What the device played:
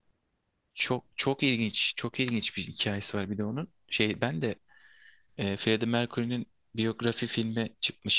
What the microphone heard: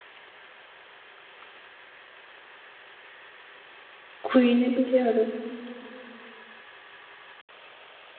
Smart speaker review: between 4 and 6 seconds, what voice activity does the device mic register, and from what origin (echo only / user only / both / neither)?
user only